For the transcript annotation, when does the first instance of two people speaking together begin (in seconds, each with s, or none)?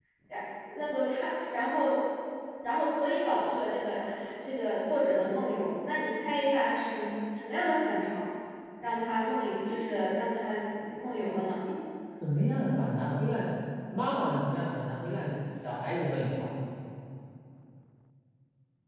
none